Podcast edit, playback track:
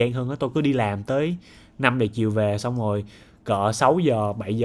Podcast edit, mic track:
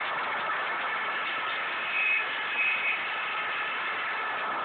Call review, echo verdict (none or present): none